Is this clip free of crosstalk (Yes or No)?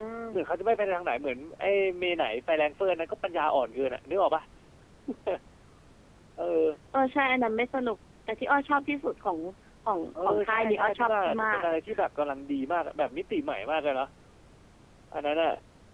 No